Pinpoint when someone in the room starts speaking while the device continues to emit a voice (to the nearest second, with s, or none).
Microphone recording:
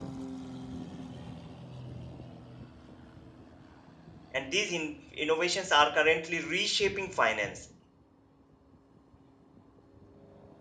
4 s